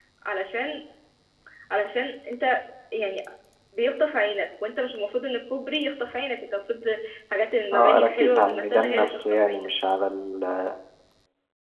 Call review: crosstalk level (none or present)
present